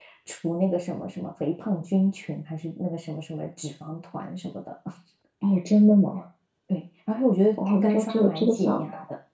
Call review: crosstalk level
present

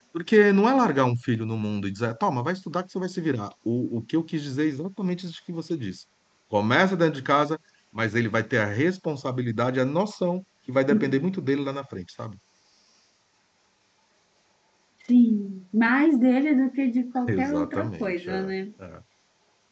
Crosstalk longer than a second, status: present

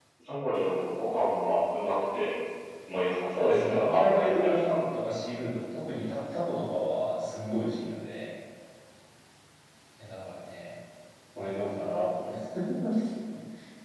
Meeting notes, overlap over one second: present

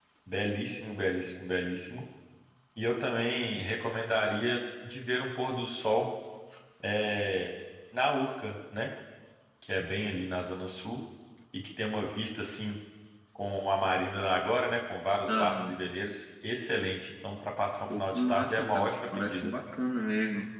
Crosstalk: present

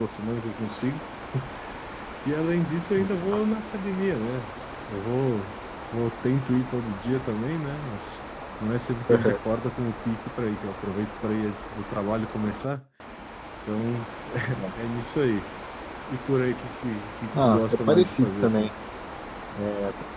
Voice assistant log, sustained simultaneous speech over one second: present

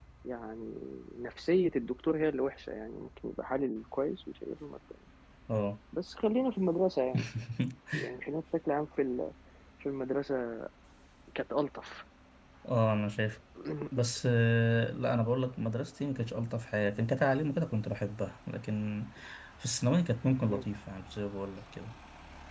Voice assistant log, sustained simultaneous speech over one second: none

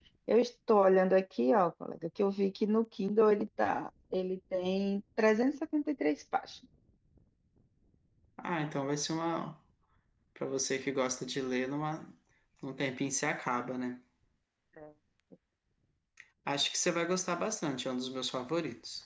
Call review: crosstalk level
none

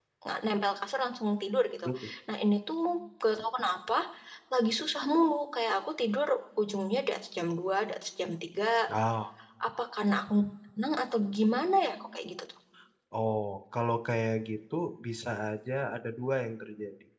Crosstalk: none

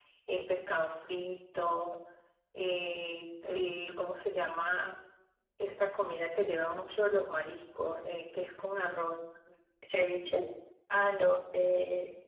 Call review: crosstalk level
none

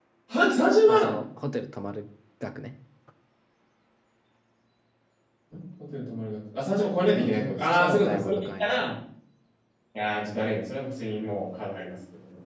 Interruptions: present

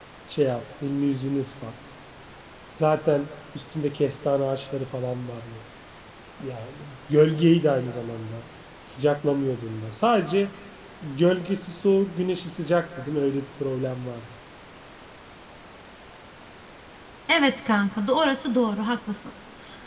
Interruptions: none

